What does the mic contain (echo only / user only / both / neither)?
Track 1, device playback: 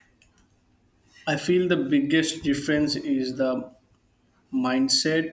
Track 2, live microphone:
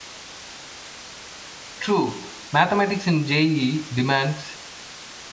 user only